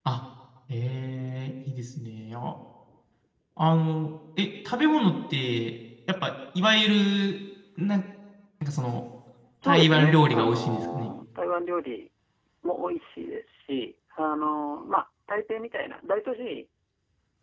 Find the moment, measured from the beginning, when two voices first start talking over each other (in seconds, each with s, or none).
9.6 s